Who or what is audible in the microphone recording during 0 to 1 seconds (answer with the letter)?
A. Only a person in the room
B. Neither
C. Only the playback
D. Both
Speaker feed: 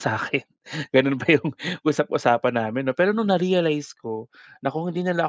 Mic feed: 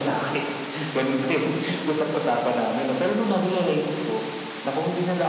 C